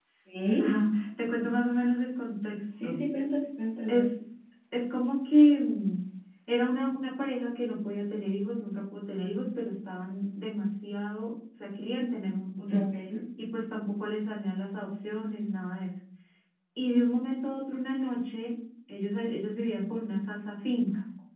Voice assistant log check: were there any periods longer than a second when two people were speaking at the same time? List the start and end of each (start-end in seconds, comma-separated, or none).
none